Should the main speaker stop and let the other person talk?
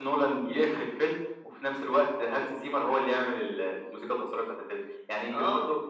No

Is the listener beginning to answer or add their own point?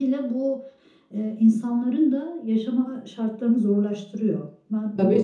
Yes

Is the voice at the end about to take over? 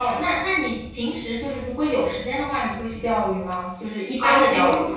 Yes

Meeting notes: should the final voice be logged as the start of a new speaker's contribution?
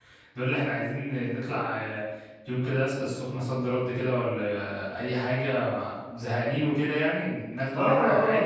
Yes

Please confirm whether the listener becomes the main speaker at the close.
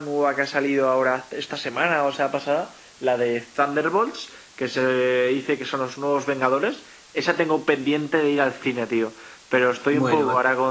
No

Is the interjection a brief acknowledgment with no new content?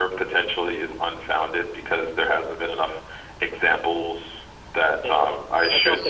No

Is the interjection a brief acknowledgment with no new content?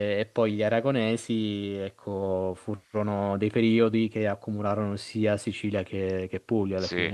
No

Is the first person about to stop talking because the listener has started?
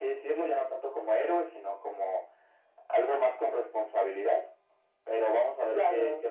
No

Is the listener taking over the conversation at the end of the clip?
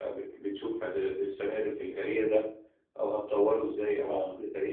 No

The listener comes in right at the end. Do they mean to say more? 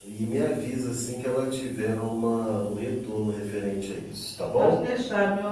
Yes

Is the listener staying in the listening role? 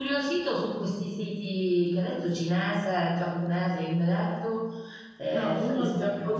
No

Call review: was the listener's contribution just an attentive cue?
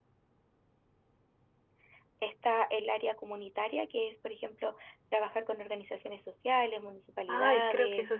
No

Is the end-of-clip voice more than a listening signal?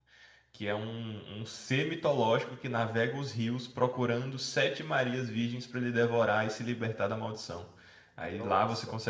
No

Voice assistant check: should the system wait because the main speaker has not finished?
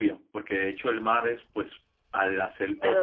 No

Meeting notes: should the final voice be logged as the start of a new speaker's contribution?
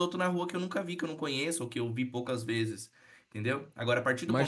No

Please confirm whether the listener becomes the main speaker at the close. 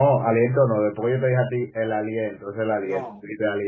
No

